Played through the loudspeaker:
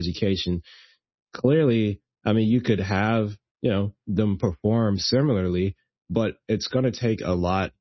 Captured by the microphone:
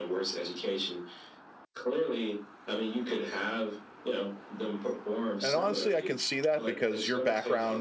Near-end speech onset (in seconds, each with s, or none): 5.4 s